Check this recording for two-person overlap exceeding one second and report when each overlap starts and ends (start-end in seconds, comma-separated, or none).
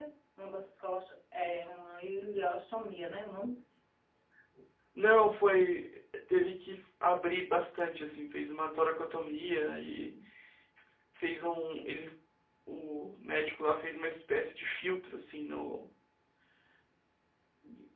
none